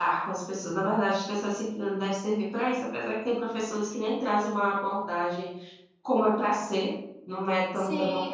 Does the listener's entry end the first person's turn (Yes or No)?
Yes